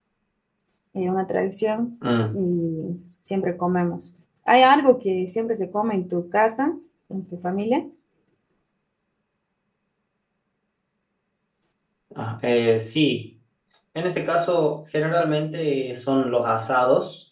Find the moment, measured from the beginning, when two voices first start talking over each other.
none

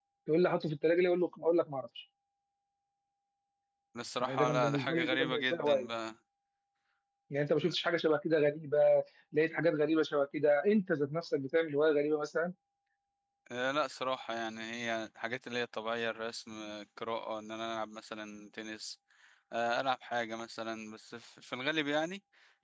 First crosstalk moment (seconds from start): 4.2 s

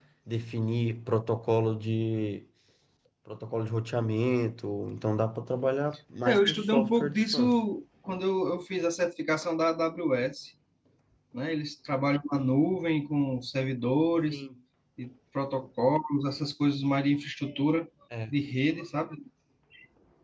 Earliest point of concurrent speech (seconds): 6.2 s

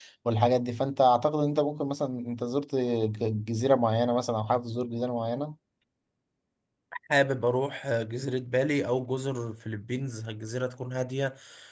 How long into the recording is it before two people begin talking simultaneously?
none

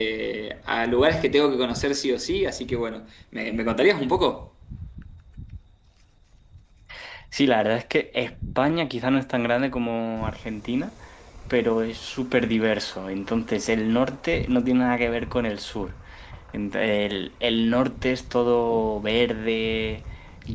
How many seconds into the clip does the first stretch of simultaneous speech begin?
none

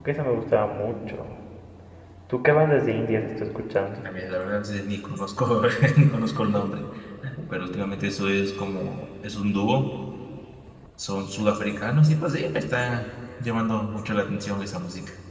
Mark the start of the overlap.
none

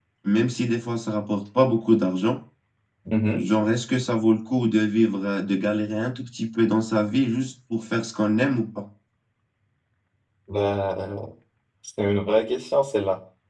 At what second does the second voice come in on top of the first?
none

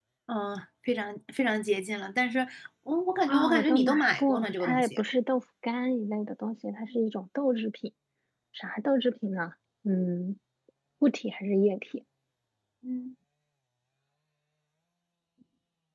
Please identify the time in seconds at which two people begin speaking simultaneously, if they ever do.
3.3 s

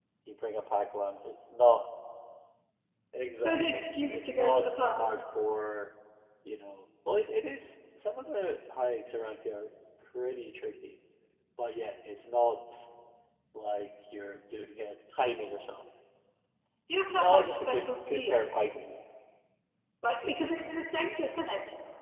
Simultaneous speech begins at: 3.4 s

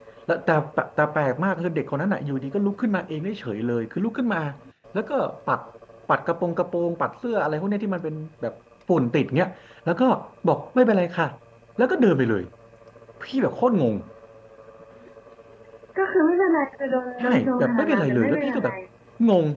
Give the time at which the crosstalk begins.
17.2 s

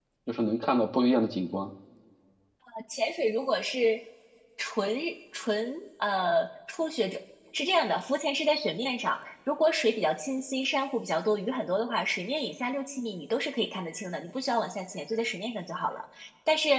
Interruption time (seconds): none

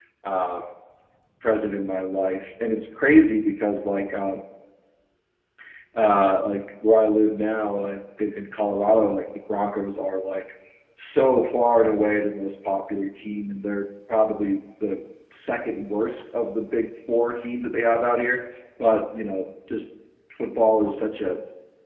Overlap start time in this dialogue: none

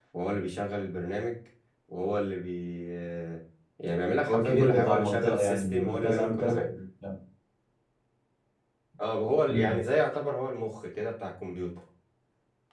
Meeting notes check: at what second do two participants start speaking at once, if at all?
4.3 s

